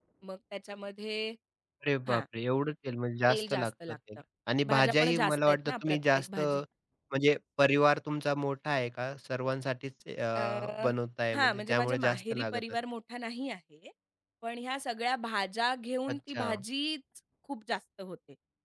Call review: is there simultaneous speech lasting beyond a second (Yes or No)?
Yes